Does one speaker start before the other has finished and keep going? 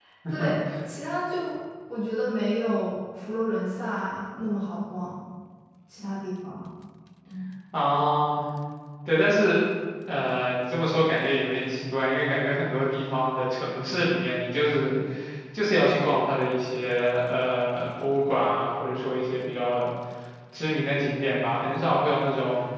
No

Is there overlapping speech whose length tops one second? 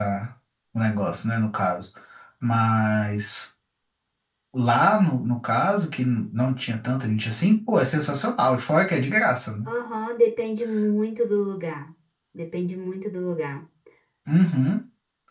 No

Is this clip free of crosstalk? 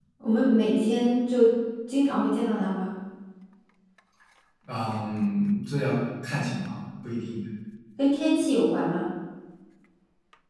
Yes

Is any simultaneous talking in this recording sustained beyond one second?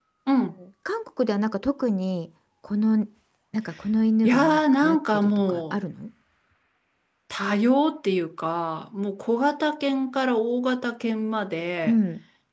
Yes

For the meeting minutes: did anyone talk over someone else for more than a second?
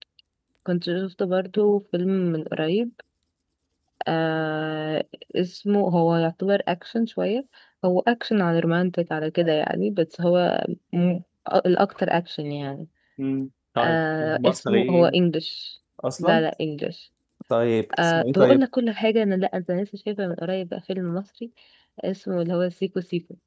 Yes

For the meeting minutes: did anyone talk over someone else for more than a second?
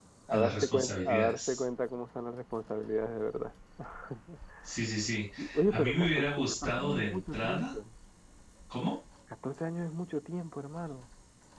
Yes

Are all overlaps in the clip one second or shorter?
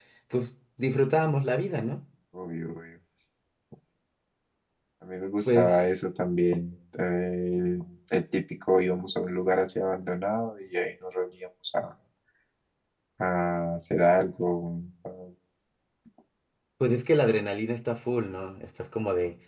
Yes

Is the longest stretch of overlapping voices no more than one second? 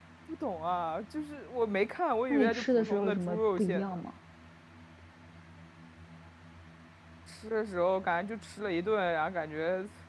No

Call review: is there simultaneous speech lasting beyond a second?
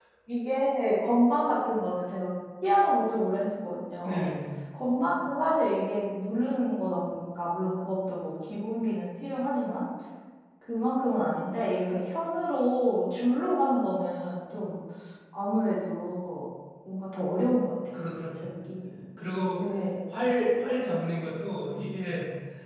No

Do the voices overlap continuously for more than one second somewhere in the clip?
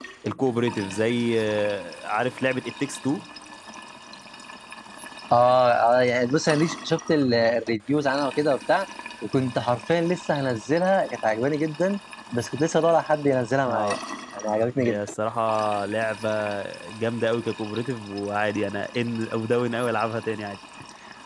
No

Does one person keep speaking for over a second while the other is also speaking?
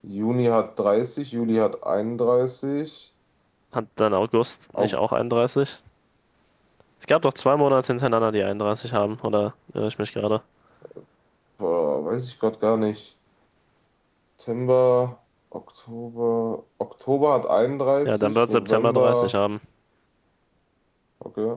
Yes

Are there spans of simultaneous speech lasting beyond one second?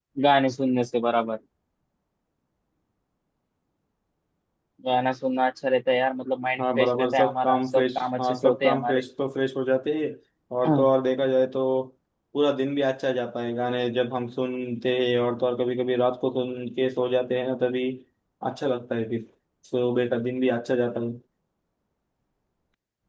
Yes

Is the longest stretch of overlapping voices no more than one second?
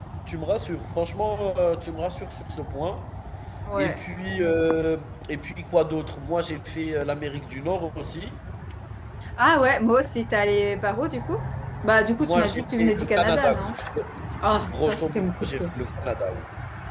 No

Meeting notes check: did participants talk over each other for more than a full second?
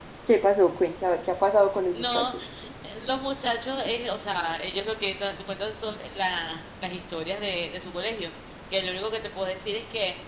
No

